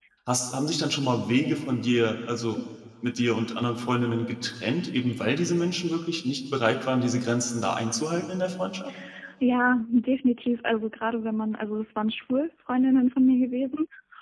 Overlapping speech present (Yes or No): No